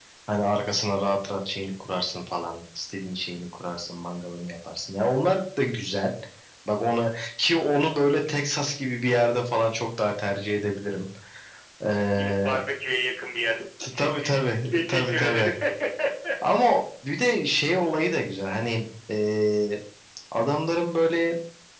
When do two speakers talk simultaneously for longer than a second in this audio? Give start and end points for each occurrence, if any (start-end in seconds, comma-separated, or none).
13.8-15.5